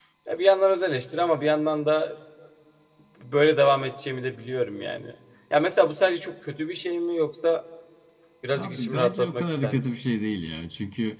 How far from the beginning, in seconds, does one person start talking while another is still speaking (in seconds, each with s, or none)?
8.6 s